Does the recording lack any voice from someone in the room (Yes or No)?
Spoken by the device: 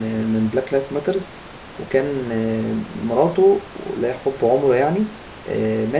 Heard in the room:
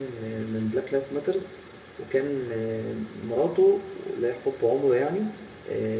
Yes